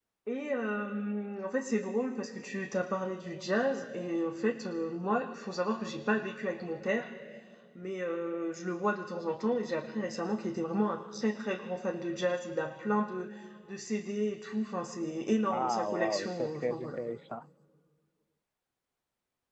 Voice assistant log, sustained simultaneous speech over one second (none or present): present